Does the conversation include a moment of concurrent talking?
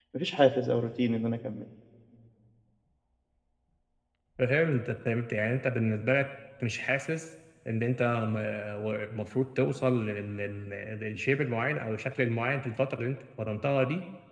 No

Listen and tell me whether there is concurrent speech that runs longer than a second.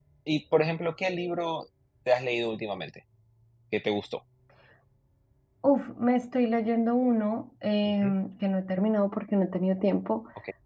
No

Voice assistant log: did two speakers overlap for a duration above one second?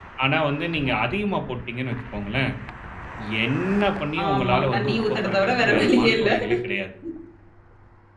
Yes, from 4.3 s

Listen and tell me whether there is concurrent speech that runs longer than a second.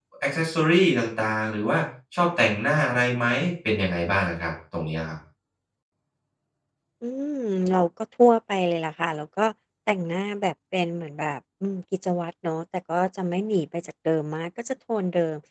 No

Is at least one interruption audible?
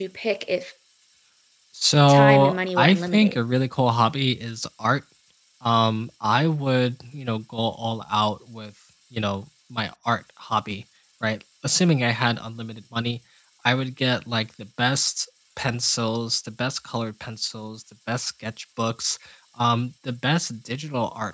Yes, from 2.1 s

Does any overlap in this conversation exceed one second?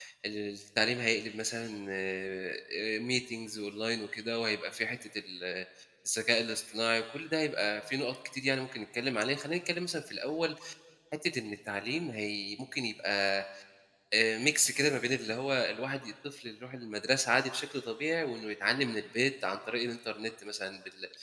No

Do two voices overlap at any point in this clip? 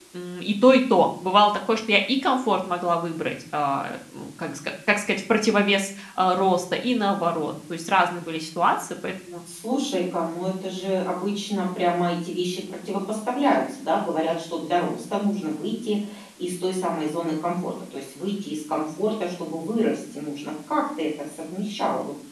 No

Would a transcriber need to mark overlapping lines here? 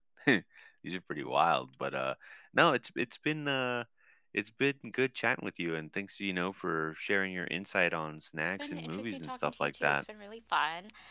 Yes, from 8.6 s

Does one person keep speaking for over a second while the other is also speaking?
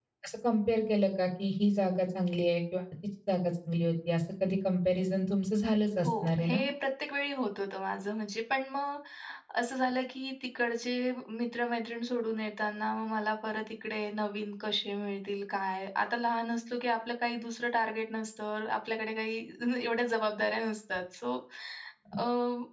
No

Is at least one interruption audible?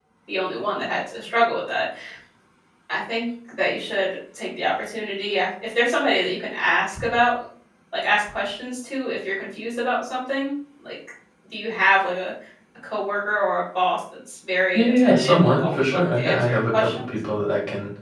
Yes, from 14.7 s

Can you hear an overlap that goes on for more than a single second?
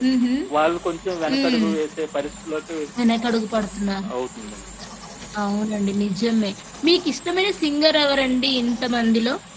No

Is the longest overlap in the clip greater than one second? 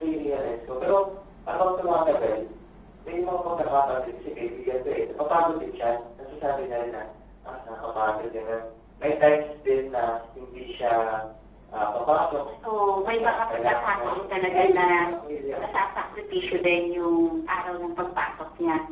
Yes, from 13.0 s

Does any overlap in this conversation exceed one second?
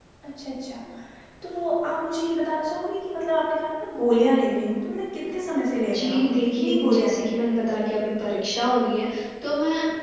Yes, from 5.9 s

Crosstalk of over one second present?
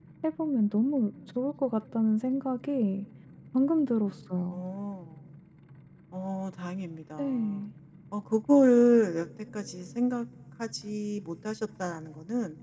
No

